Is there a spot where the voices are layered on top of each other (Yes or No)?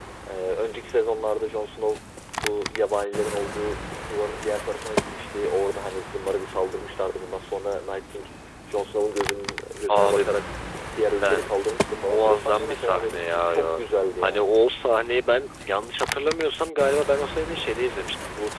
Yes